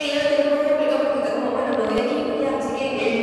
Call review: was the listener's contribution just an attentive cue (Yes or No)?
No